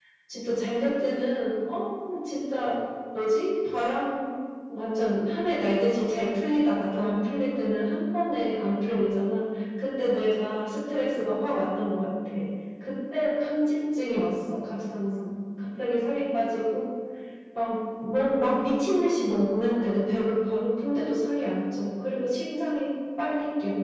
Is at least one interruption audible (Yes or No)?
No